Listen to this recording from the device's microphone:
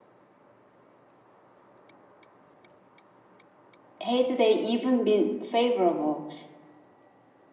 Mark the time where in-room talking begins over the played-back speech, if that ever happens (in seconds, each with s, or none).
4.0 s